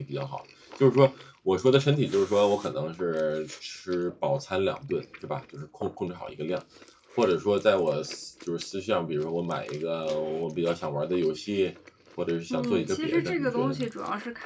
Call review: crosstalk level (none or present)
present